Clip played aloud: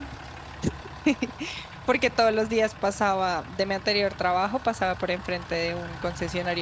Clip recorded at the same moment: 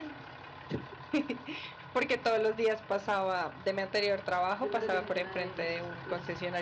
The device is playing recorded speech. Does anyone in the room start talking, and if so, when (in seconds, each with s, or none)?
4.6 s